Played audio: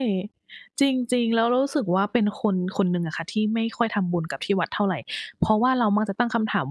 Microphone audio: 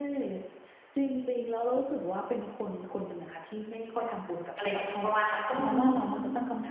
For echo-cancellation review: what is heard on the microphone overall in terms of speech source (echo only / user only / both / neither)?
both